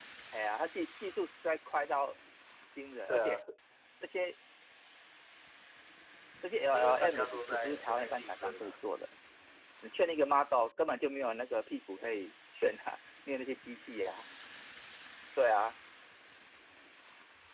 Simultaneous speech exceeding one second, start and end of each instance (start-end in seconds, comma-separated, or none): 6.7-8.8